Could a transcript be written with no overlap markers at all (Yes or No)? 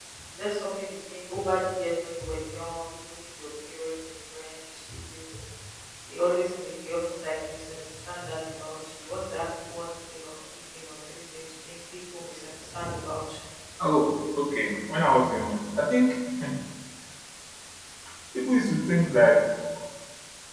Yes